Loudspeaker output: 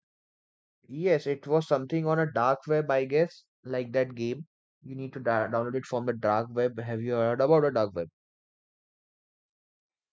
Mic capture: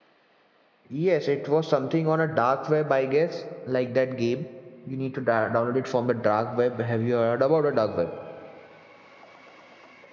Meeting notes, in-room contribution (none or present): none